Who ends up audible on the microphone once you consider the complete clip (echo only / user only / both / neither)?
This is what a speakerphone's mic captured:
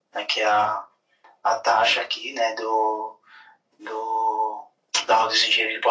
echo only